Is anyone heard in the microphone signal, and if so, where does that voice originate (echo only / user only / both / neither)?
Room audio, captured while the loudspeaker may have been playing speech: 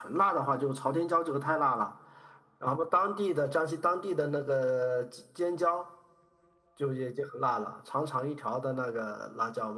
echo only